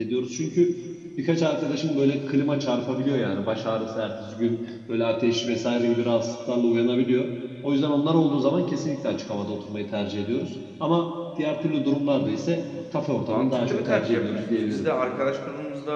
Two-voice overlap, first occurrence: 13.3 s

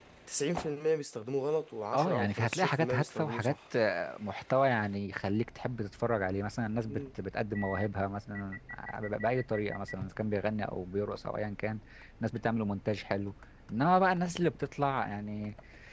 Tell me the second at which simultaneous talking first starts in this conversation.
1.9 s

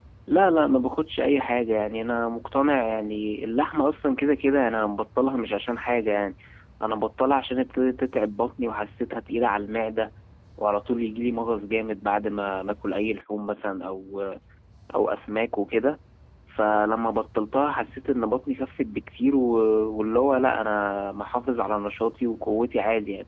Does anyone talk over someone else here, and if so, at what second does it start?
none

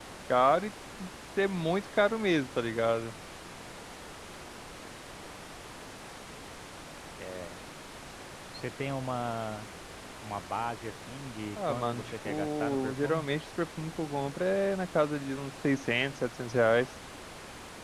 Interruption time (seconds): 11.6 s

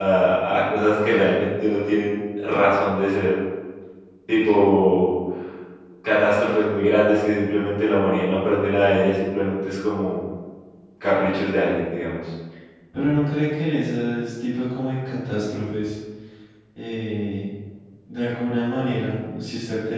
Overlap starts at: none

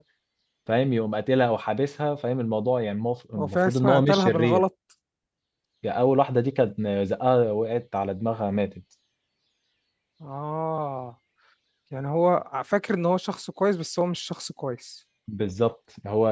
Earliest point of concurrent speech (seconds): 3.4 s

